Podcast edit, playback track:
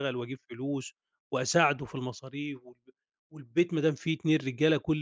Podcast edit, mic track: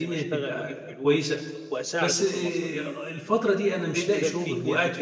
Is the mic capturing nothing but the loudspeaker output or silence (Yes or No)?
No